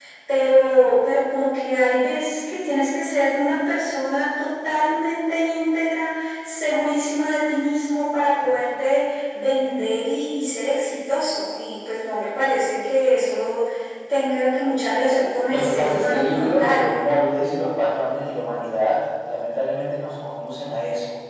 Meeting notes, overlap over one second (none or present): present